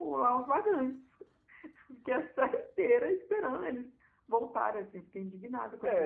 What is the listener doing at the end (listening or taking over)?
taking over